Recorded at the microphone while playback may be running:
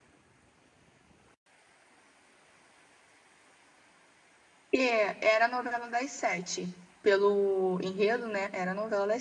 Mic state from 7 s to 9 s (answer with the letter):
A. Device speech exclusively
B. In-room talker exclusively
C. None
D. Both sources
B